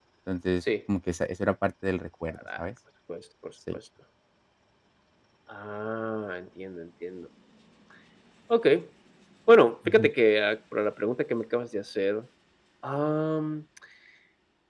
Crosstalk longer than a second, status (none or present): none